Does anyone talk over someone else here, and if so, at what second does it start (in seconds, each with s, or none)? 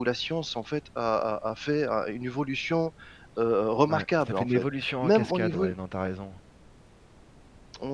3.9 s